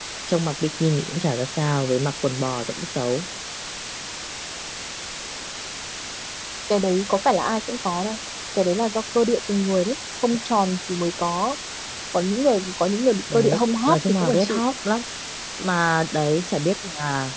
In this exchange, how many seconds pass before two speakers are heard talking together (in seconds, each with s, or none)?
13.3 s